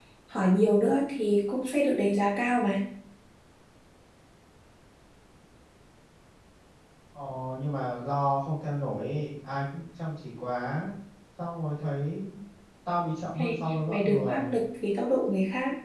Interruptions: present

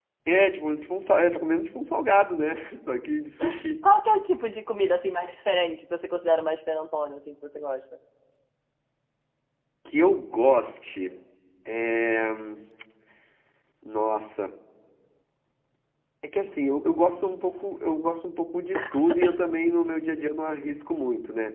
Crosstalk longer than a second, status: none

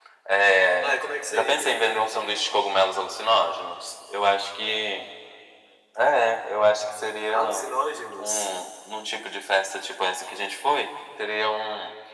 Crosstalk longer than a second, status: none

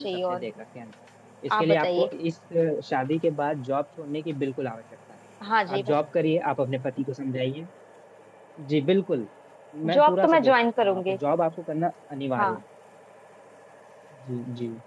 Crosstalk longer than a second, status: present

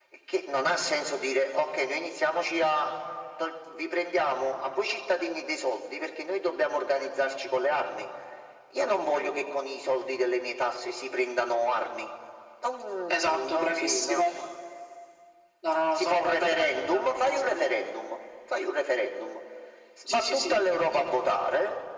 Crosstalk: present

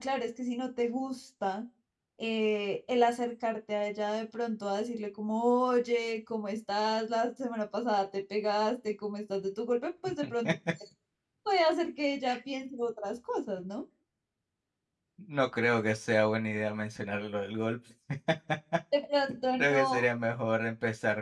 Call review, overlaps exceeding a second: none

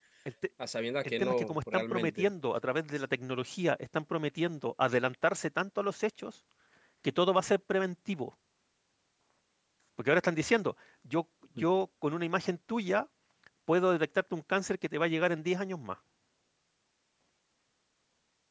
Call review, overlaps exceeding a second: present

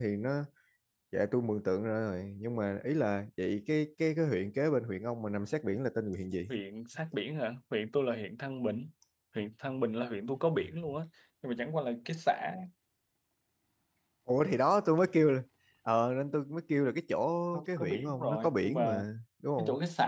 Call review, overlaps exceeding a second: present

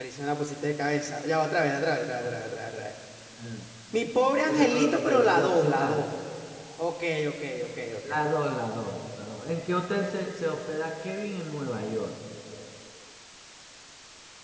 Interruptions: present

